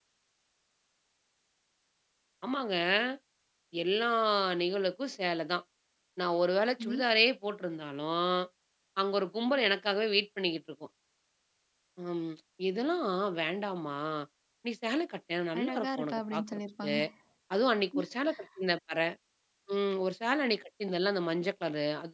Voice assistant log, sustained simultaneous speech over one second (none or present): present